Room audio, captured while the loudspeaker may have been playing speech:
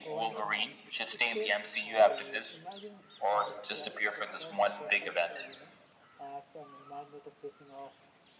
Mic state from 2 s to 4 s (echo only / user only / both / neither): both